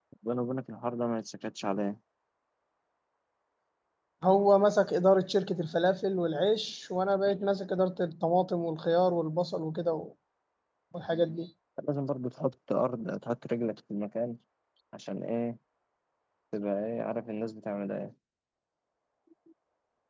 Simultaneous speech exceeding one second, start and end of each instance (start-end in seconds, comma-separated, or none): none